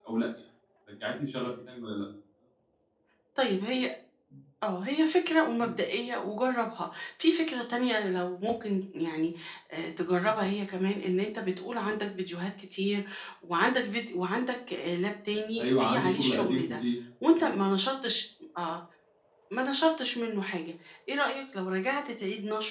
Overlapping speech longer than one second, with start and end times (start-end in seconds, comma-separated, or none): 15.6-16.8